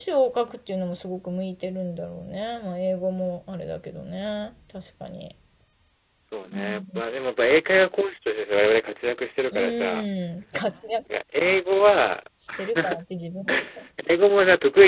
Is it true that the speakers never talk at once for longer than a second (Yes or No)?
Yes